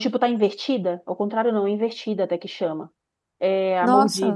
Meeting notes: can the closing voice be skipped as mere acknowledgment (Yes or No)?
Yes